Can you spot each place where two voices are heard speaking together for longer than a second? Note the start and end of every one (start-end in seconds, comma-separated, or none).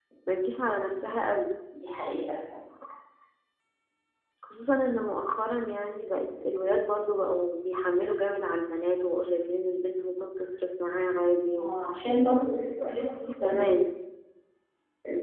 none